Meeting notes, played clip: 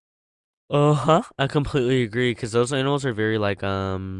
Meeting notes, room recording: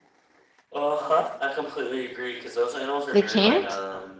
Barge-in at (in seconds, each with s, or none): 3.1 s